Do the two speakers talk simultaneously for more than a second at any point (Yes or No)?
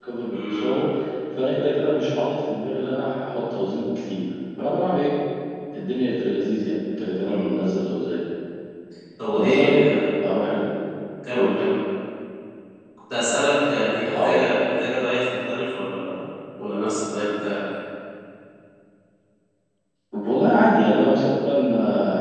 No